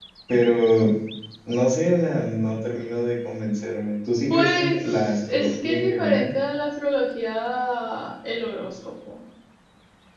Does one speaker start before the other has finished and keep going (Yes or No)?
Yes